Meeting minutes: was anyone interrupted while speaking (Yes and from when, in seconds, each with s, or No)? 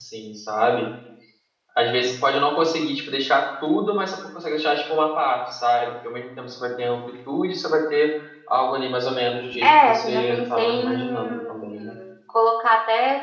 Yes, from 9.6 s